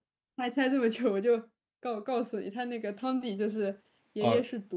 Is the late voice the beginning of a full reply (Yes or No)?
No